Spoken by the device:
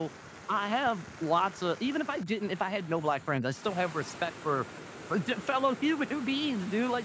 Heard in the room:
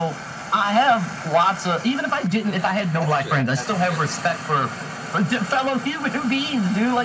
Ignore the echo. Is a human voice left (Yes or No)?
Yes